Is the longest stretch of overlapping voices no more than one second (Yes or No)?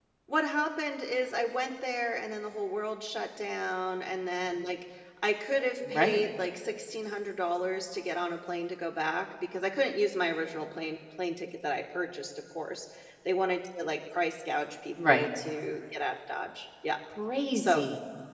Yes